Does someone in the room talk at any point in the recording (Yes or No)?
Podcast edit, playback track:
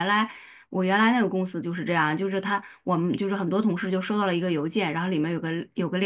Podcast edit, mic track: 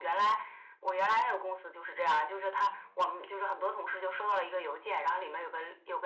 No